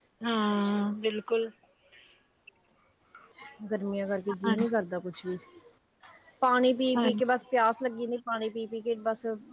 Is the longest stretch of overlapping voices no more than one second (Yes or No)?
Yes